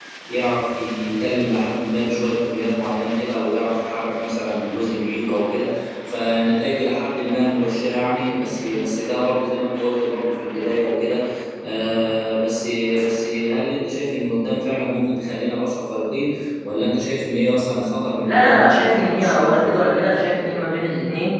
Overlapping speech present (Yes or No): Yes